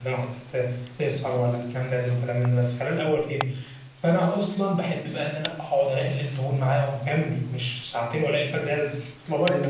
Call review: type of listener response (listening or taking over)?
taking over